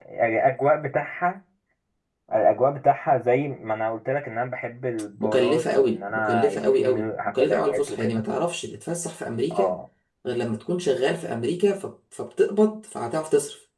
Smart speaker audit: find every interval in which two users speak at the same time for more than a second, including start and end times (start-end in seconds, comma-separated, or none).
5.2-8.2